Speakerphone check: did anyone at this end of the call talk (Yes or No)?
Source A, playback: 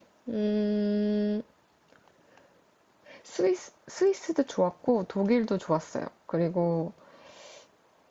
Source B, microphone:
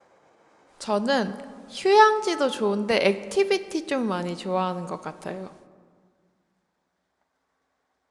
Yes